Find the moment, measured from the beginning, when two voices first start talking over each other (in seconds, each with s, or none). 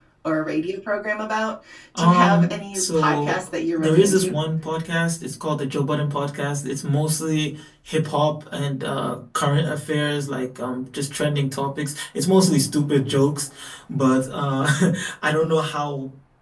1.9 s